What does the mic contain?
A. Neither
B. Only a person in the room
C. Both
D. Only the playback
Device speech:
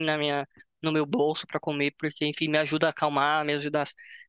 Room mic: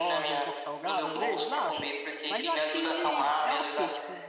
C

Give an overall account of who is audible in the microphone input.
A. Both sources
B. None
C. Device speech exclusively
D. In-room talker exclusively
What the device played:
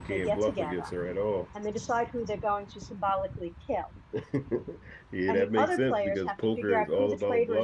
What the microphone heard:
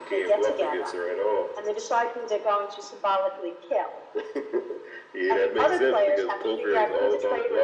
C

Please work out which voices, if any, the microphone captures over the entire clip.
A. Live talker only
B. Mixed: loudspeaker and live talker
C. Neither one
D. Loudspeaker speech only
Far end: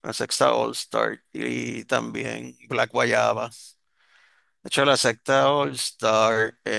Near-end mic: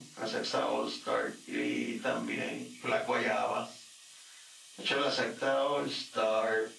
D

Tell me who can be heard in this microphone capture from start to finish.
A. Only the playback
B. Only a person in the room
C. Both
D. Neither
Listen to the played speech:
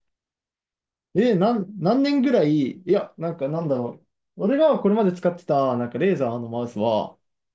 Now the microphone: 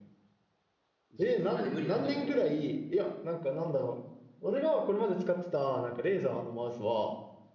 C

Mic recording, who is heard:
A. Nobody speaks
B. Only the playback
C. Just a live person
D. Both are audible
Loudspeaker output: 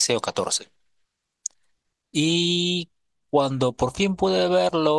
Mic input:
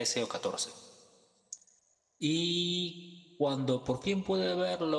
B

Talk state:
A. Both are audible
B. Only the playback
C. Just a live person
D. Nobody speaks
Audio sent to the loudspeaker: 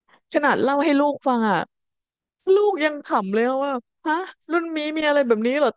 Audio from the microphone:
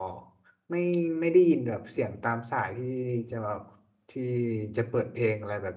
C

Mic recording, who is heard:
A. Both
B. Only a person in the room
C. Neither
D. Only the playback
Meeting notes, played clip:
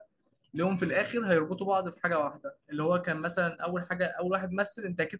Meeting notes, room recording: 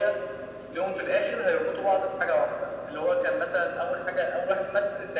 D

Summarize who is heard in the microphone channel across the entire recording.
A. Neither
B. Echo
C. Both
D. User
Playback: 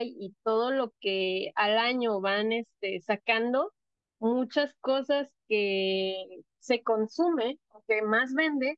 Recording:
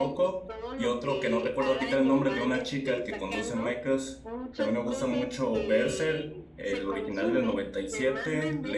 C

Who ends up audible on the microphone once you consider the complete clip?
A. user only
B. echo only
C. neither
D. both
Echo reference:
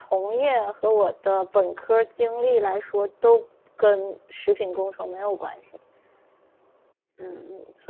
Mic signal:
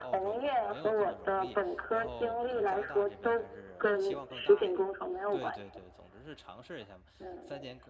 D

